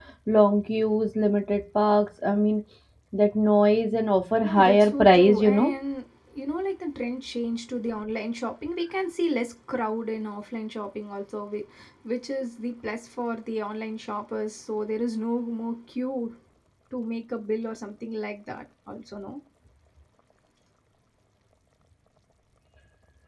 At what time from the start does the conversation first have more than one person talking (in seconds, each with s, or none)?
4.4 s